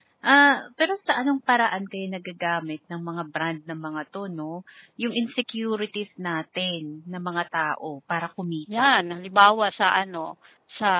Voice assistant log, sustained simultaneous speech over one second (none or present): none